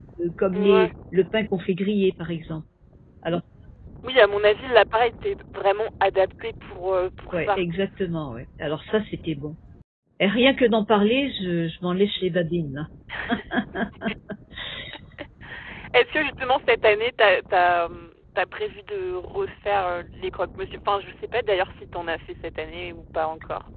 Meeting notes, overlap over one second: none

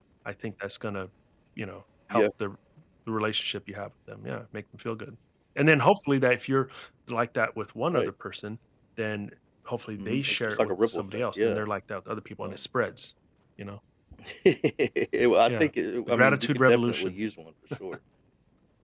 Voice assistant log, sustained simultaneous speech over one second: present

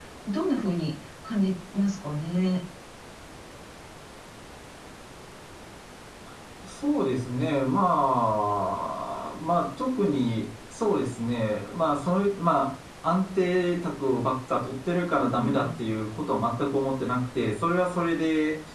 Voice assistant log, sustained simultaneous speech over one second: none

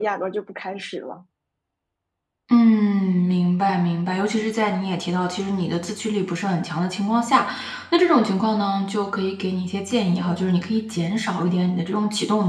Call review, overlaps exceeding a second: none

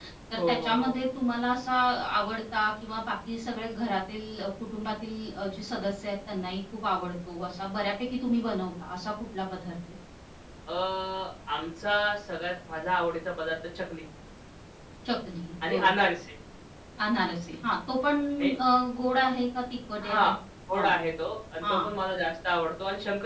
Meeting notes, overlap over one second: none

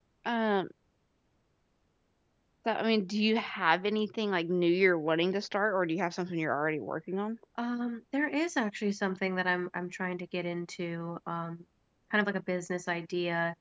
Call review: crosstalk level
none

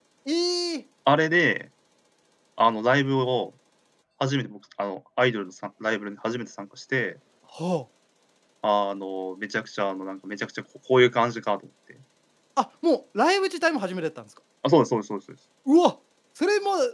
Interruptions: none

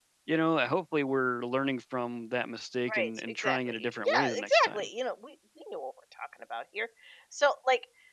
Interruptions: present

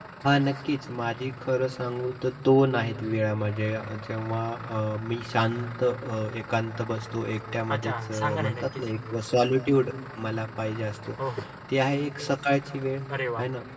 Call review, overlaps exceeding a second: present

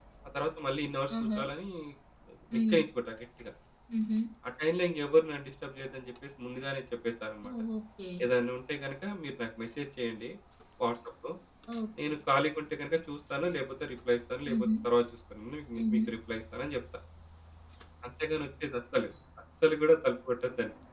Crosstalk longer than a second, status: none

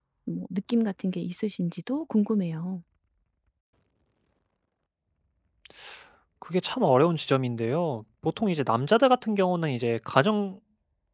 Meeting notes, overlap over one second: none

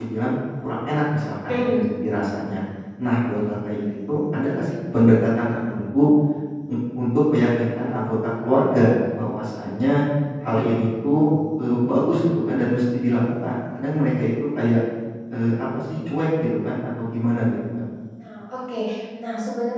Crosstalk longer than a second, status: none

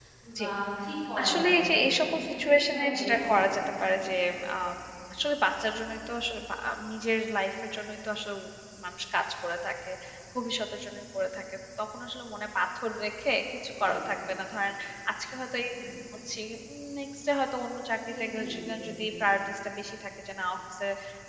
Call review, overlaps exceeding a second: present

